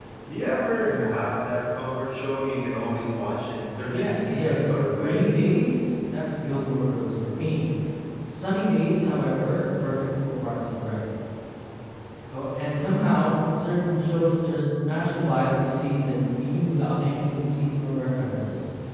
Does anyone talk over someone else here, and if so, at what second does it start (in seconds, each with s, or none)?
3.9 s